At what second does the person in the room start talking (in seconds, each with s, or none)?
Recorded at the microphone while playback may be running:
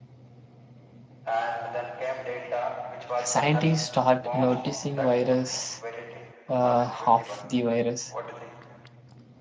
3.2 s